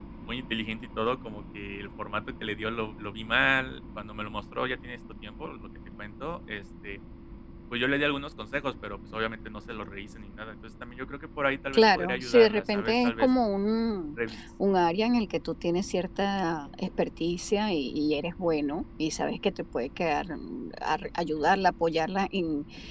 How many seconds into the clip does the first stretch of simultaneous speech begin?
12 s

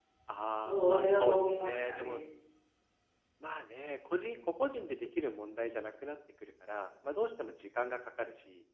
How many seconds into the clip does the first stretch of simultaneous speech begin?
1 s

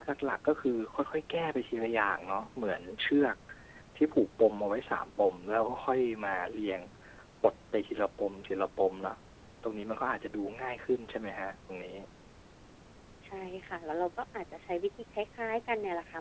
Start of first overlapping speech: none

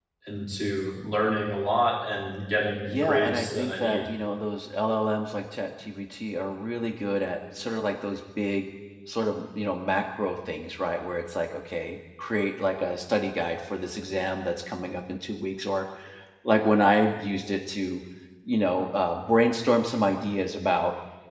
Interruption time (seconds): 3 s

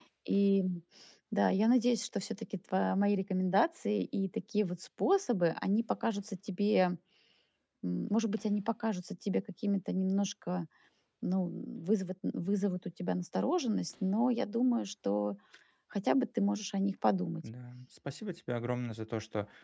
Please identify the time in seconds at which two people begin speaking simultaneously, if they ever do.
none

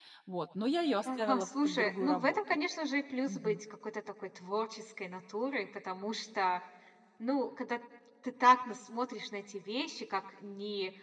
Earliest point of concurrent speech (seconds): 1 s

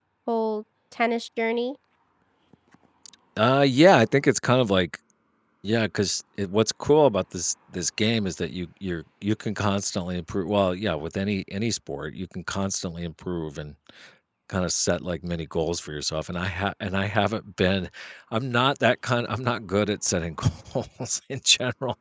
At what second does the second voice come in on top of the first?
none

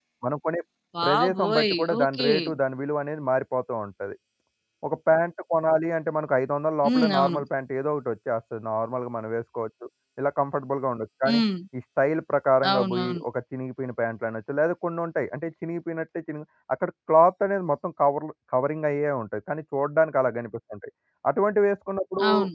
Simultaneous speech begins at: 1 s

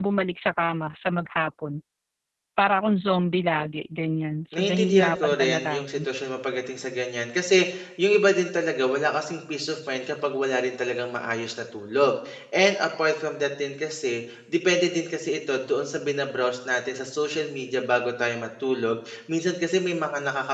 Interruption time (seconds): 5 s

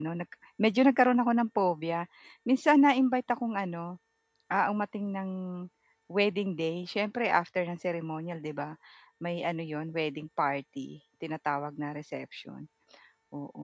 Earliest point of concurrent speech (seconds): none

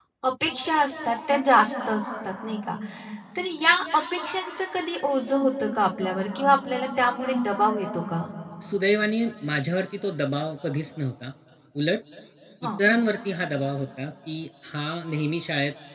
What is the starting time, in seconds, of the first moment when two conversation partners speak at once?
none

